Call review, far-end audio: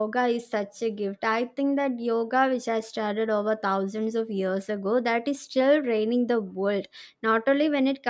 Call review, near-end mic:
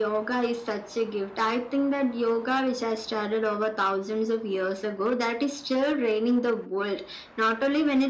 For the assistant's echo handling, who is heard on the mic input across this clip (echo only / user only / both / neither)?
echo only